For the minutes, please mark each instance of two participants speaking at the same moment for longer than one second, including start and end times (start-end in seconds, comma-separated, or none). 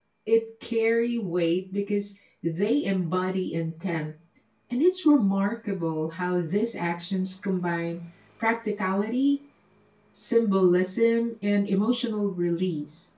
none